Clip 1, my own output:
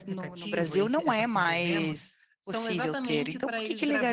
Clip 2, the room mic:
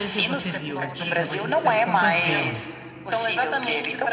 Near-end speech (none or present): present